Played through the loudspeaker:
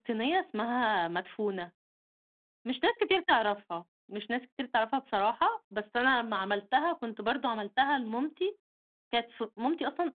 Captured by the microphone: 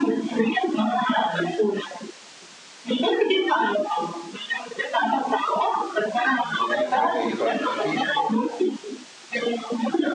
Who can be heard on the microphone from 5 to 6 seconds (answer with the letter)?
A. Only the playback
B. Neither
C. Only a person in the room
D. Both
A